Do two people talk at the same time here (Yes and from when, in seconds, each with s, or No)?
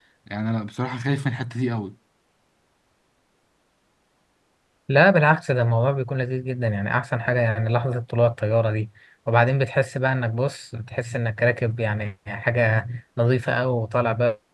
No